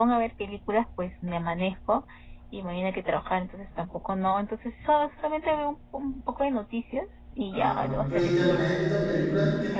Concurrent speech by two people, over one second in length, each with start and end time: 7.5-8.7

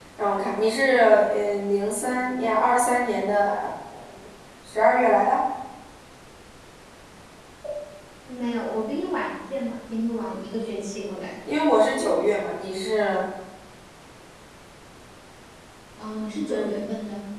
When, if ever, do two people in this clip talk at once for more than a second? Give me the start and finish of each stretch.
none

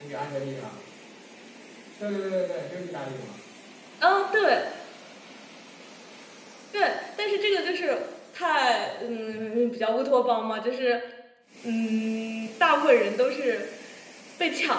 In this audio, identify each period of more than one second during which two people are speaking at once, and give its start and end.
none

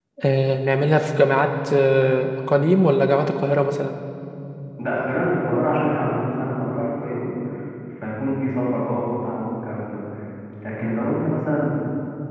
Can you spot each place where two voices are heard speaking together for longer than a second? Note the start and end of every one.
none

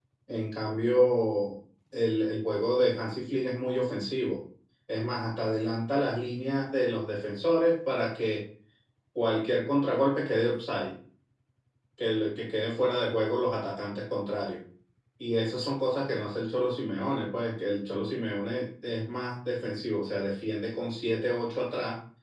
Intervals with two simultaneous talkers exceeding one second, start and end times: none

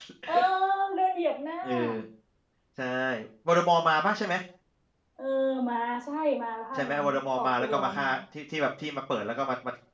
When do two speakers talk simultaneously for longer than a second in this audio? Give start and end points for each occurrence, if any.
6.7-8.0

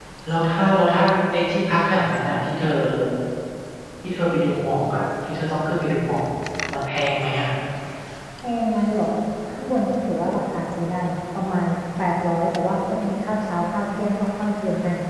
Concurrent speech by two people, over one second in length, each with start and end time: none

